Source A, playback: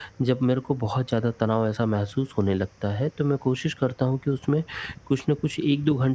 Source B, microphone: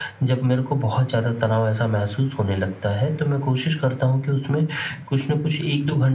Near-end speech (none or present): none